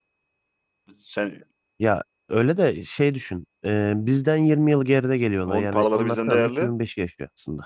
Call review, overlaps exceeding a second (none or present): present